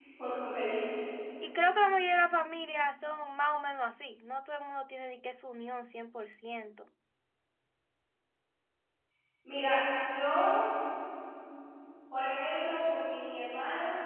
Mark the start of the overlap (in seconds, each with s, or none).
none